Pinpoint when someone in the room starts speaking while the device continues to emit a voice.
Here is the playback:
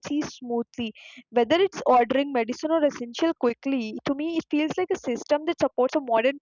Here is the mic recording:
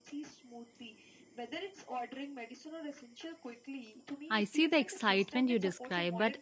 4.3 s

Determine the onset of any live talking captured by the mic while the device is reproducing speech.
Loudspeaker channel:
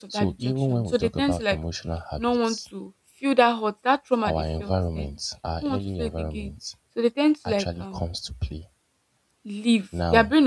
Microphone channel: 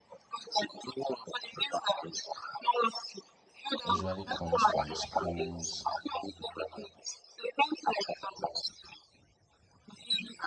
3.8 s

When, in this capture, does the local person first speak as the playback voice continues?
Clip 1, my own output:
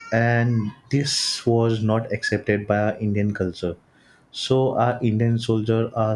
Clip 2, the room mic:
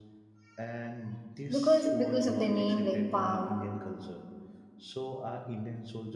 1.5 s

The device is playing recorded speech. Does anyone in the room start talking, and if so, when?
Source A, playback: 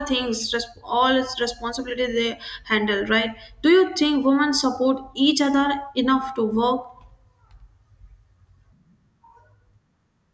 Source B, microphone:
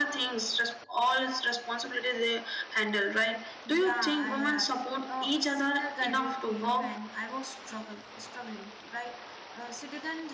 3.6 s

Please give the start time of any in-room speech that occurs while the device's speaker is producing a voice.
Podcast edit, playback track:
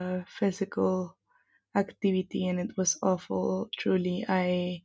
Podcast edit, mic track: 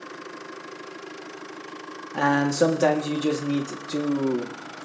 2.1 s

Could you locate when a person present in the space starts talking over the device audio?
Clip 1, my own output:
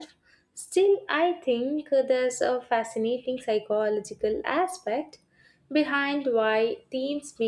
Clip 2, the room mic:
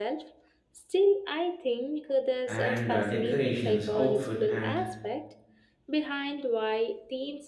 2.5 s

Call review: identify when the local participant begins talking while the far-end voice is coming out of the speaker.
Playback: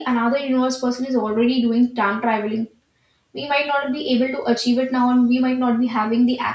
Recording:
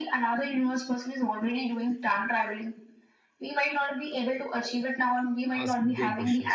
5.6 s

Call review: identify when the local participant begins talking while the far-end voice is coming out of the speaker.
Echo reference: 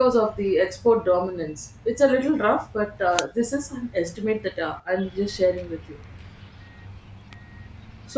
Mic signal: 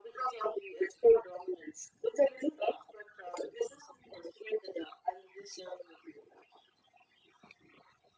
none

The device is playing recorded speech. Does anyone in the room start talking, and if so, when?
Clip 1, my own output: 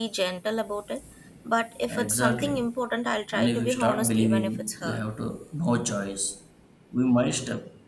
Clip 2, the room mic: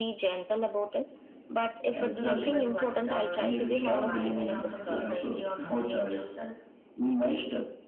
2.1 s

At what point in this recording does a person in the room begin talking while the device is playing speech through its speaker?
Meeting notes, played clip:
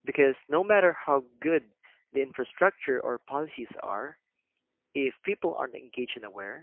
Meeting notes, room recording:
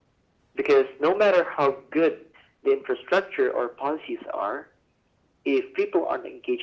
none

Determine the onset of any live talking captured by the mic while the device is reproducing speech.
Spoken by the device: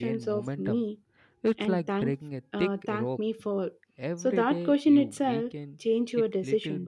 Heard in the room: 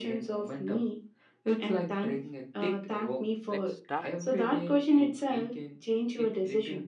3.5 s

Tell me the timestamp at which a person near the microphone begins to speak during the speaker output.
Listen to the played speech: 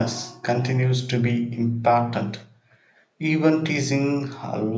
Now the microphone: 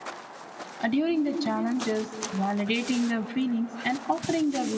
0.8 s

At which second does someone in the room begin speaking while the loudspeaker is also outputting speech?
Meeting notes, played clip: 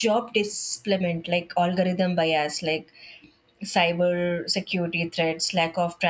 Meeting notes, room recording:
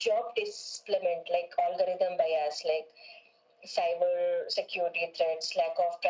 none

